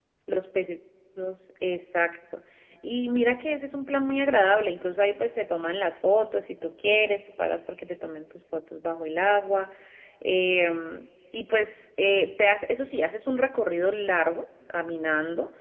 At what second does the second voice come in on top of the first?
none

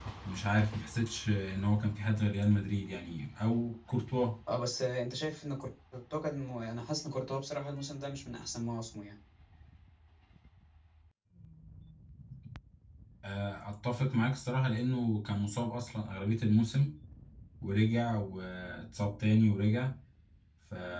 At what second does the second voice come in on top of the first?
none

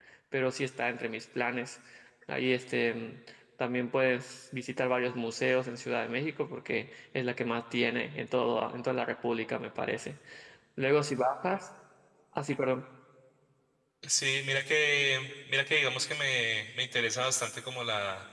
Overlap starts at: none

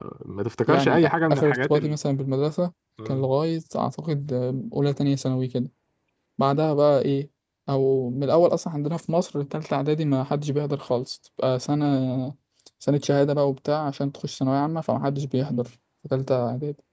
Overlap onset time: 0.6 s

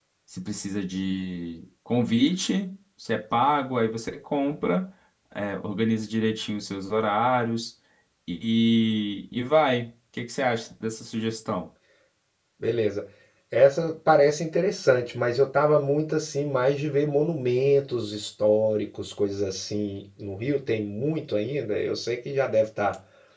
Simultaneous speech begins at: none

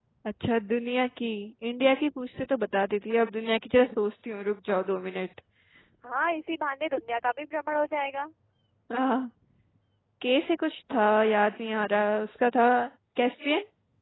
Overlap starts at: none

